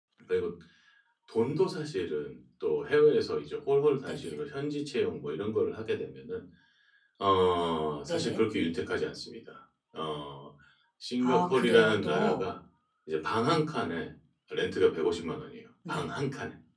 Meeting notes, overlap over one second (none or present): present